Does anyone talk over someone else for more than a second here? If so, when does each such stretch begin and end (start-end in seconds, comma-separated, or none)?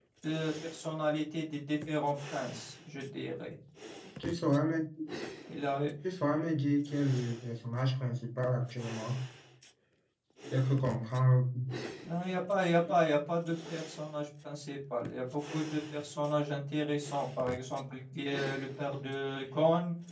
none